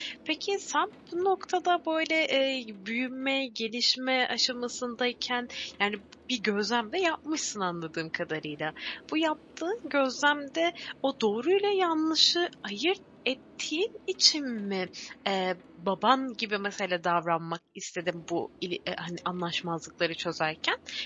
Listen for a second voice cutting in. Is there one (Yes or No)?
No